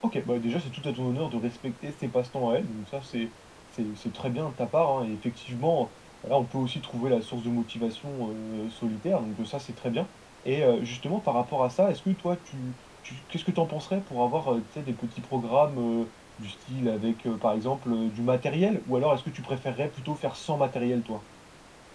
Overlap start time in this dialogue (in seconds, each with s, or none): none